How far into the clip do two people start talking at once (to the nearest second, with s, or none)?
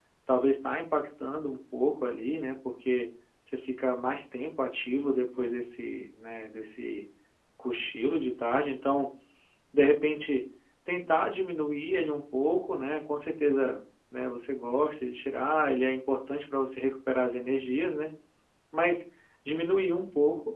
none